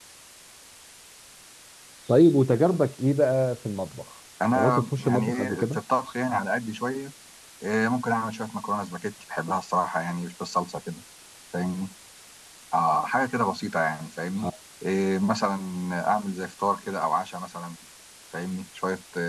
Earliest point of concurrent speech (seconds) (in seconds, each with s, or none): 4.4 s